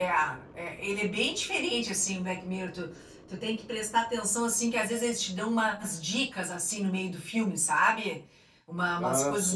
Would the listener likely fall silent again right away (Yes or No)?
Yes